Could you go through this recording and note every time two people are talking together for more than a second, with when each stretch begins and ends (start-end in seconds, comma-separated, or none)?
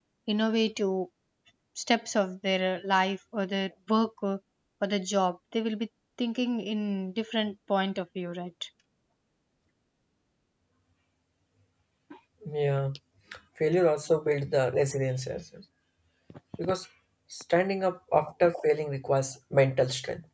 none